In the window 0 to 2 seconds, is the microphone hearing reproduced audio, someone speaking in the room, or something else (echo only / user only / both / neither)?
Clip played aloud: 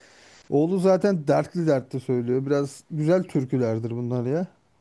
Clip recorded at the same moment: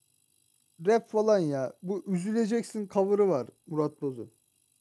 user only